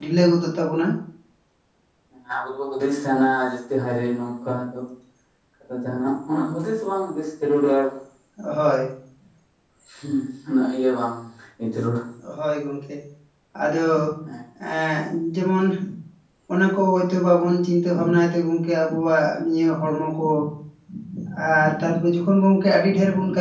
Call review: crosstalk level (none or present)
none